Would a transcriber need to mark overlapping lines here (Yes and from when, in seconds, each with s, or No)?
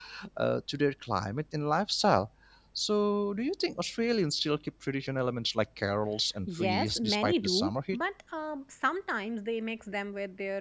Yes, from 6.5 s